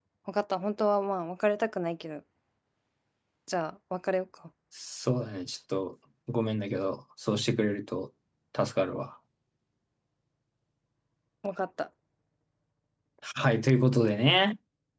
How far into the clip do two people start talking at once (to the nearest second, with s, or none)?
none